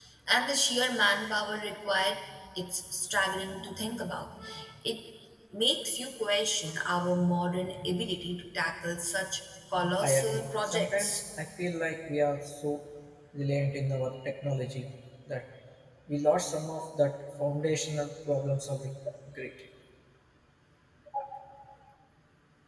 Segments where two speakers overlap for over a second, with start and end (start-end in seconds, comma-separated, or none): 10.0-11.2